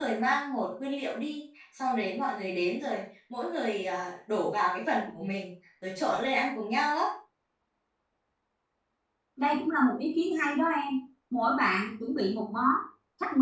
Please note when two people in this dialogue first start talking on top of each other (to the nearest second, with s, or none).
none